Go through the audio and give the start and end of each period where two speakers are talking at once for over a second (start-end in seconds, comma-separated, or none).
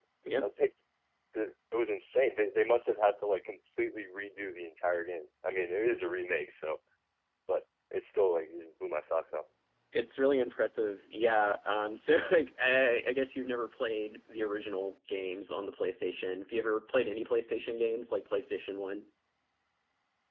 none